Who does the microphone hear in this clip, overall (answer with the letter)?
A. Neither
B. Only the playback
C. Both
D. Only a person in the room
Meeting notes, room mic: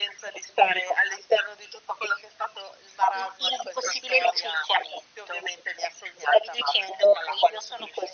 B